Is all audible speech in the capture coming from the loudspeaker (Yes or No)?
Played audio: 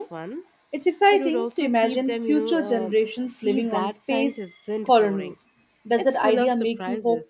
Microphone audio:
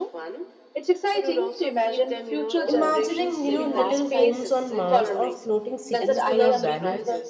No